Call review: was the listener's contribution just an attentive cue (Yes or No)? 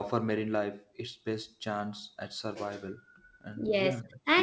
No